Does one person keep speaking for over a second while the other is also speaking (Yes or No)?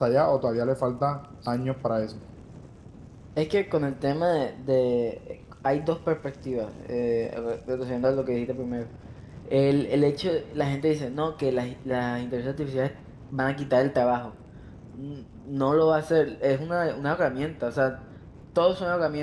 No